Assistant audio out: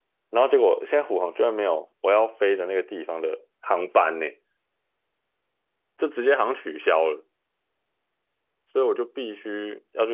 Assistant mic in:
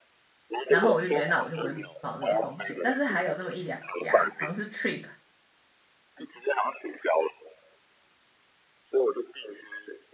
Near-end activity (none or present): present